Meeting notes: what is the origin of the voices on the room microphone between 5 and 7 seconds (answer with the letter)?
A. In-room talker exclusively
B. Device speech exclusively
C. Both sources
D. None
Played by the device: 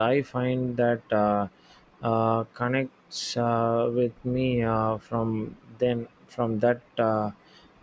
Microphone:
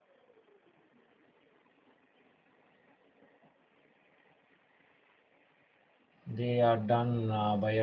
A